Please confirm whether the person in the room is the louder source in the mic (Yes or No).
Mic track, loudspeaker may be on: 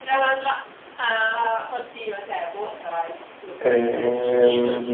Yes